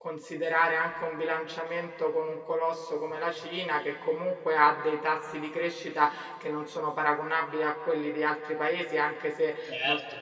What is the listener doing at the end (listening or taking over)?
listening